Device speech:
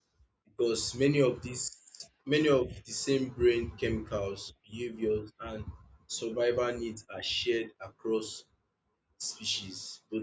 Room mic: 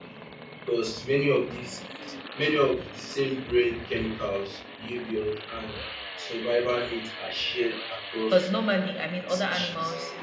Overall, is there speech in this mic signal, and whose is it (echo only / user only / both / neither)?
both